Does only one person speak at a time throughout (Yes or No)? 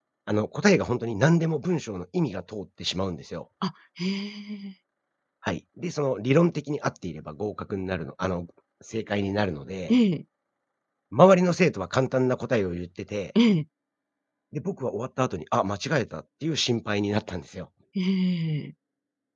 Yes